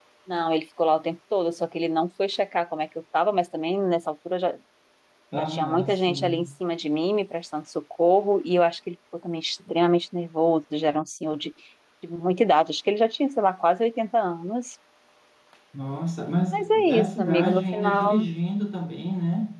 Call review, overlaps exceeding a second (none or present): present